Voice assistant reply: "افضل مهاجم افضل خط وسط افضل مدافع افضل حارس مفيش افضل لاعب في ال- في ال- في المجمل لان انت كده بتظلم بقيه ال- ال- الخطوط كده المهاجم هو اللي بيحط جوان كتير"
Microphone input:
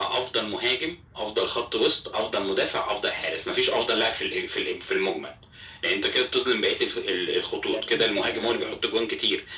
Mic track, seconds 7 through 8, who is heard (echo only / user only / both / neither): both